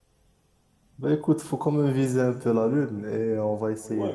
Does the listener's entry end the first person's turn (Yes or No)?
Yes